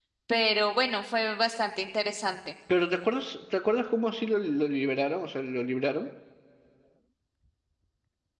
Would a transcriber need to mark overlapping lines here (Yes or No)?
No